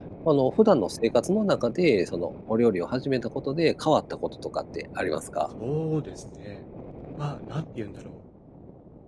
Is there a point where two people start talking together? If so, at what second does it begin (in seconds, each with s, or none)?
none